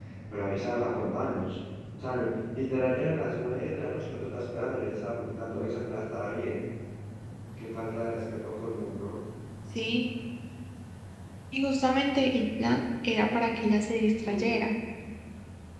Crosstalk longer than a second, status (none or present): none